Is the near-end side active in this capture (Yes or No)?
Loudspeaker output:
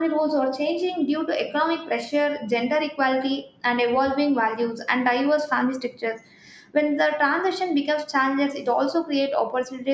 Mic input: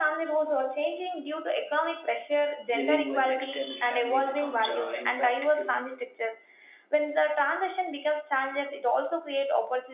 Yes